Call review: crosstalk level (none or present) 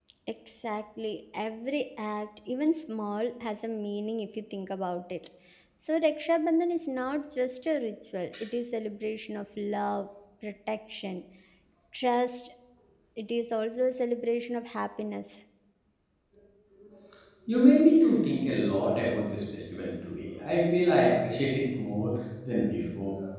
none